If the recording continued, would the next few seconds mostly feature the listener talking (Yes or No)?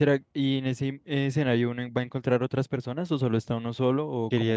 Yes